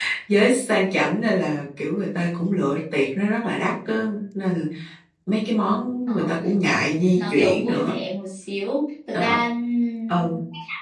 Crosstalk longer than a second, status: present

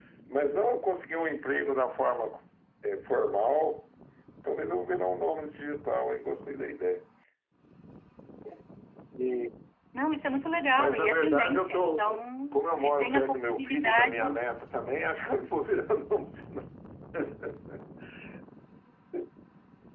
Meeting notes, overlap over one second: present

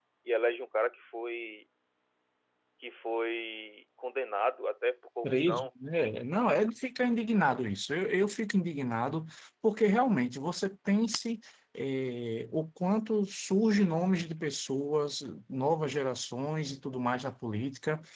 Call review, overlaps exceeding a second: none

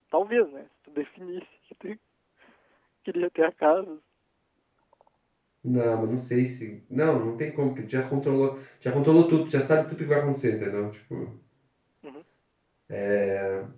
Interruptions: none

